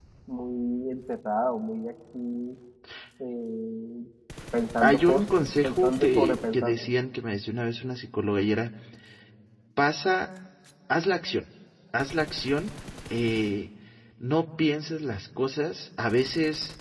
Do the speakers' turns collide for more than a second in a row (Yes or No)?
Yes